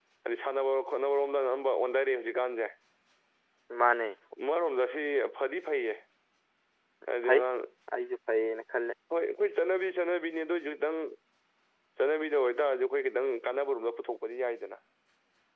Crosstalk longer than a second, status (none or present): none